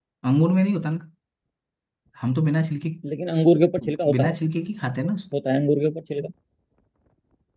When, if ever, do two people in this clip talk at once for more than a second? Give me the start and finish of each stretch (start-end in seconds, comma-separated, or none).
none